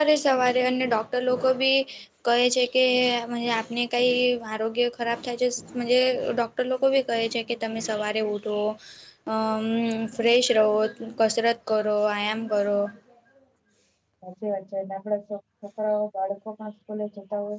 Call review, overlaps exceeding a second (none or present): none